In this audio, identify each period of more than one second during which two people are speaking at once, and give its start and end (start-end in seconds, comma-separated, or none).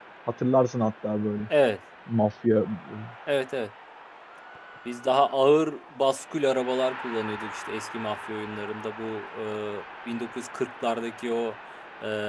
none